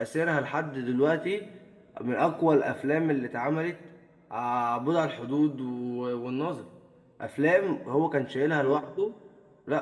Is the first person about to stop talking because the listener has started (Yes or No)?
No